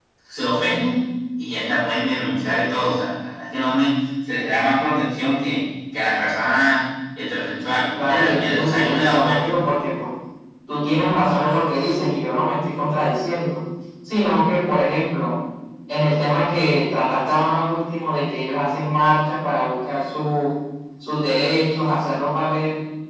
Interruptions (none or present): present